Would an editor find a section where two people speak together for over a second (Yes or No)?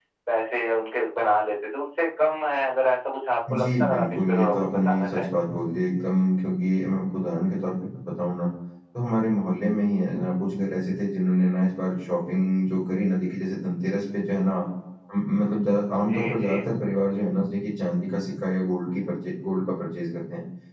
Yes